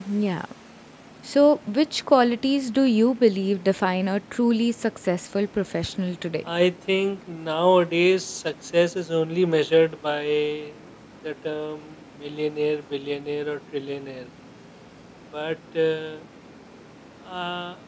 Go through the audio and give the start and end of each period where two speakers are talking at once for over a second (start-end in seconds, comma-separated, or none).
none